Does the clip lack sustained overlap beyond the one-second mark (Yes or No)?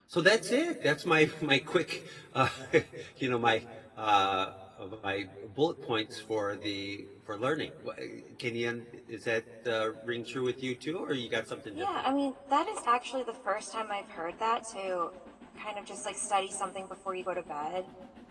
Yes